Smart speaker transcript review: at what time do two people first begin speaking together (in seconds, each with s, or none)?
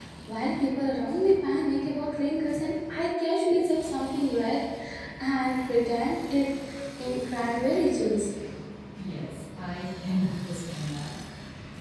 none